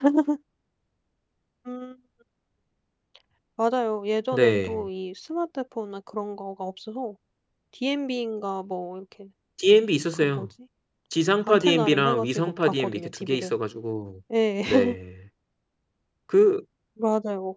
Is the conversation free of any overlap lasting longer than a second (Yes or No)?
No